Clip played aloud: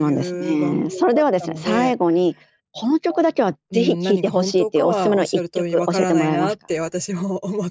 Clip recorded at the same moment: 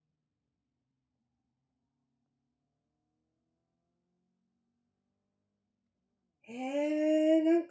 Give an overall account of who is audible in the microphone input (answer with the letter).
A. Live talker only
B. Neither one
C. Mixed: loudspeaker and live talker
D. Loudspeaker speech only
A